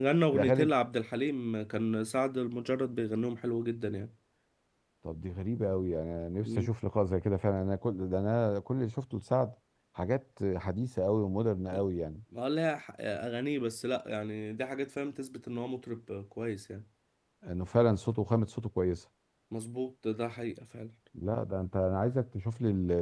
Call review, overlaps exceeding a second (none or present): none